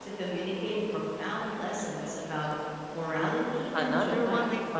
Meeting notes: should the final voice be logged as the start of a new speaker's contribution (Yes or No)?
Yes